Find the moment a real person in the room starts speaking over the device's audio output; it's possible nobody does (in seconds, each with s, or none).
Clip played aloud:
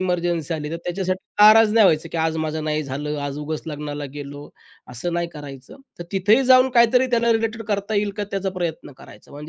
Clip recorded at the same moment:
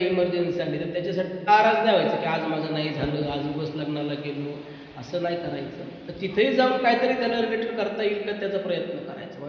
3.0 s